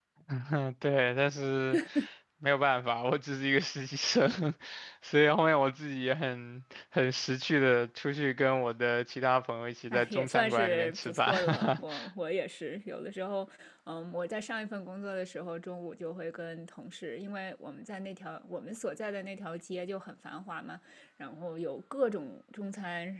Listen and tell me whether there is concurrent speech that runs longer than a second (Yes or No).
Yes